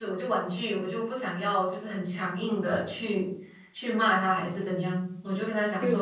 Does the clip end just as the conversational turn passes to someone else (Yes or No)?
Yes